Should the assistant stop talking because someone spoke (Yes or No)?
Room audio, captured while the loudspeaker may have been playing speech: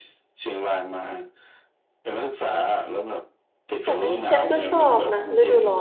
Yes